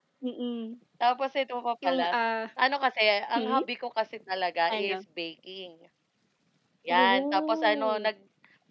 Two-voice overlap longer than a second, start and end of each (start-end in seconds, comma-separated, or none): 6.9-8.1